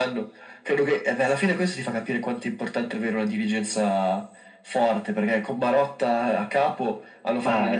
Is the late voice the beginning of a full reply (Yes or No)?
No